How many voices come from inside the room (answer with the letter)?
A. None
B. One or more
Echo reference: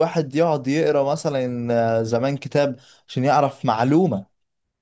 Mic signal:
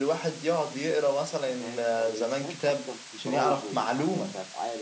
B